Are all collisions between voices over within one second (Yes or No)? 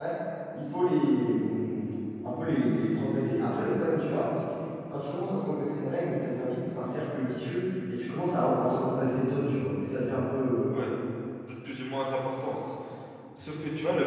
Yes